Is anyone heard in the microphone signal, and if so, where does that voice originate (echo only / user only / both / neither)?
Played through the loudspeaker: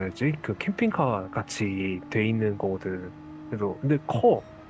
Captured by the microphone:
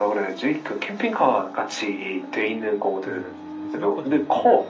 both